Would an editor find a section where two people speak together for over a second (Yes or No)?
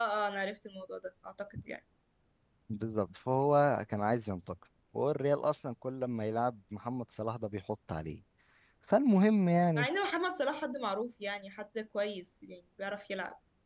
No